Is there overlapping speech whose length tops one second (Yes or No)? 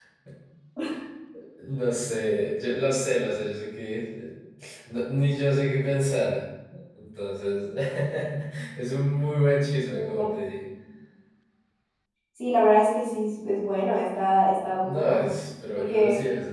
No